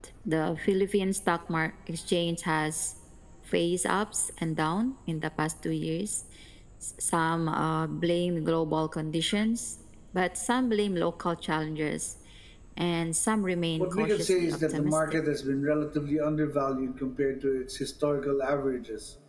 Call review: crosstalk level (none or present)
present